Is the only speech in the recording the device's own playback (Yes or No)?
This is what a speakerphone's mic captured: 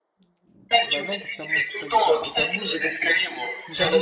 No